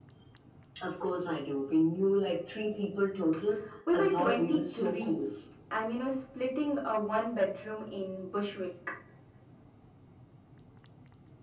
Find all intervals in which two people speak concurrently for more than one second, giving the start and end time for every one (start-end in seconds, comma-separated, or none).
3.9-5.2